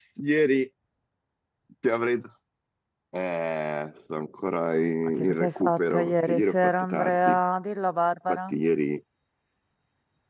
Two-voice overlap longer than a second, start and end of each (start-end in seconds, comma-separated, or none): 5.2-7.3